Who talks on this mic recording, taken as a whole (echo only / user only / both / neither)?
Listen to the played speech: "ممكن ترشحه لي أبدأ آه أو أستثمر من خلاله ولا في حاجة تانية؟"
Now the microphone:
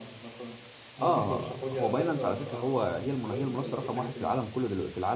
both